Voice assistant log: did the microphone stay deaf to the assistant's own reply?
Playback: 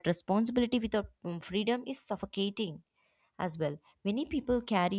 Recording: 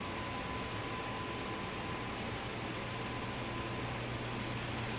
Yes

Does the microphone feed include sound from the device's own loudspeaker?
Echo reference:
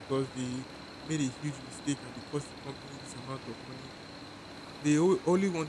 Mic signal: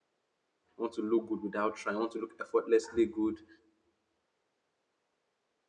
No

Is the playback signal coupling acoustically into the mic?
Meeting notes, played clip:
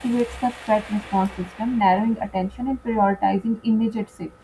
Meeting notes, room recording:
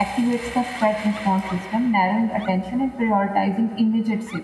Yes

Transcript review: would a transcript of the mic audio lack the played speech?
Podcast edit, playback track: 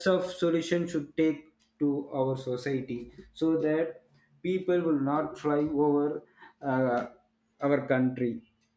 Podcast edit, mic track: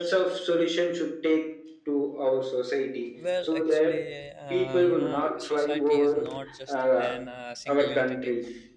No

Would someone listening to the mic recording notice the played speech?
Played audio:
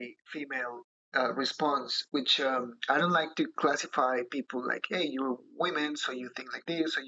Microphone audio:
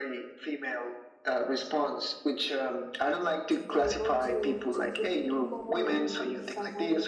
Yes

